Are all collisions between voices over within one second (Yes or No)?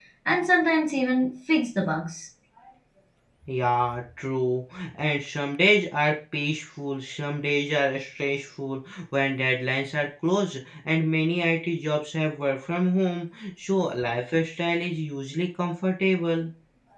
Yes